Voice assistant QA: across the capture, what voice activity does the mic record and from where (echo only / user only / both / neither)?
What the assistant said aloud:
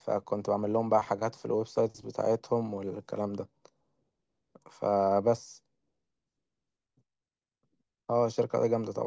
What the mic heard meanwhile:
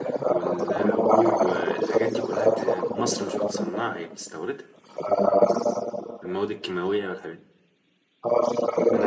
both